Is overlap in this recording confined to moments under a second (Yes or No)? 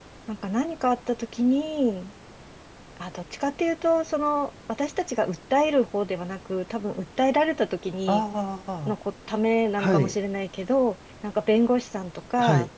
Yes